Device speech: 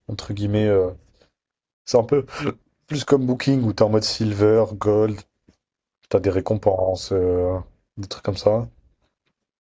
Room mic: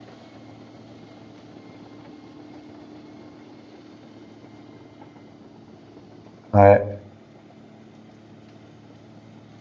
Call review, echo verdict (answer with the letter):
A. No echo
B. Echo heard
A